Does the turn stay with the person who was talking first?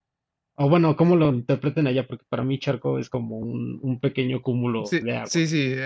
No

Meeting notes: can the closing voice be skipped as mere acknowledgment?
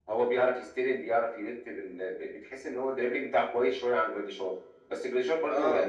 No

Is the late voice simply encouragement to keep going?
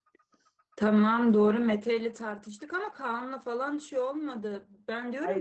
Yes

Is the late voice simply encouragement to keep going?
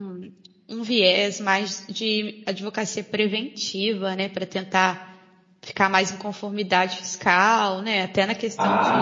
No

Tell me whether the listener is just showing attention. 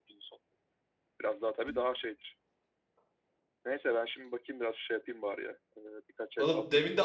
No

